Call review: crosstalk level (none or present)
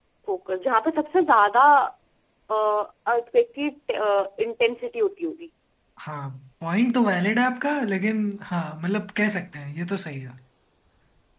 none